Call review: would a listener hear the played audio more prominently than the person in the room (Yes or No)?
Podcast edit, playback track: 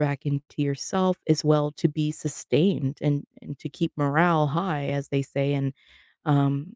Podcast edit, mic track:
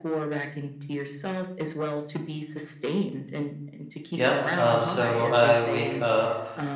No